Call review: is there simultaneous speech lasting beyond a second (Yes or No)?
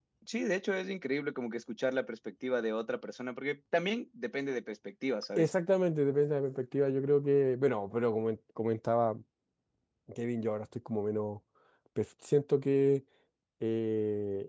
No